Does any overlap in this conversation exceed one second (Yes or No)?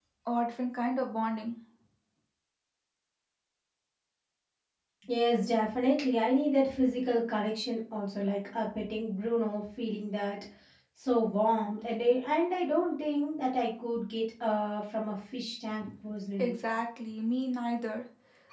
No